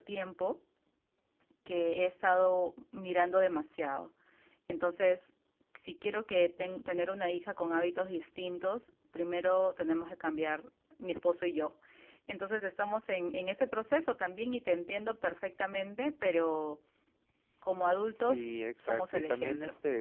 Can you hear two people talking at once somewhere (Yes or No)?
Yes